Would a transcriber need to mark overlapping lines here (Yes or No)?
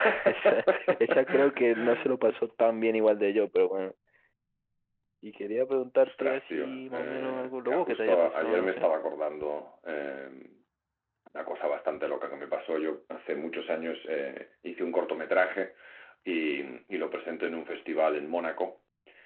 Yes